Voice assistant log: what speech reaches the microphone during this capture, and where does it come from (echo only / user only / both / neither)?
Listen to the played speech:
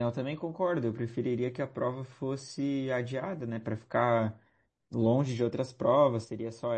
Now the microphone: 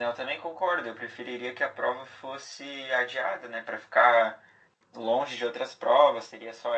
echo only